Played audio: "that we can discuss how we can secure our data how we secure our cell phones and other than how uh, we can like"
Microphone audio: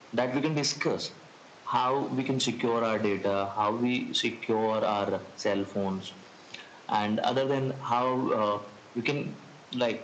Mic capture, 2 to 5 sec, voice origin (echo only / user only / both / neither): echo only